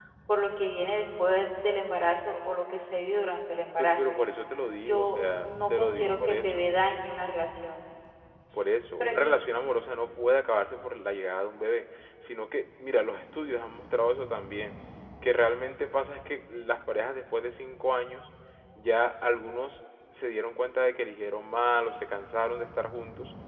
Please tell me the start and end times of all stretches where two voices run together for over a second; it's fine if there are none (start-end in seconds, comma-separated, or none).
4.9-6.7